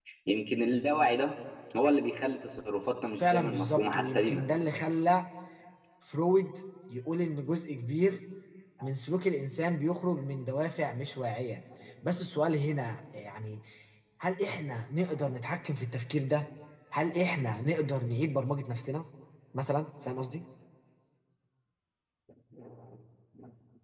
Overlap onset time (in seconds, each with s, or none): 3.2 s